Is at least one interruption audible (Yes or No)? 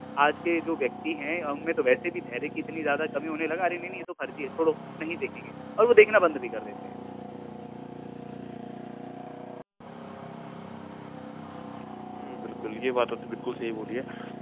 No